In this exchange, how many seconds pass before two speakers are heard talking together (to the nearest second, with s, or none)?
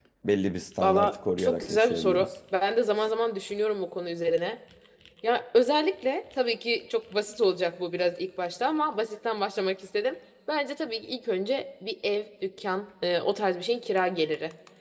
1 s